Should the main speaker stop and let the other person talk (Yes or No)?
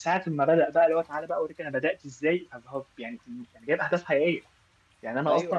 No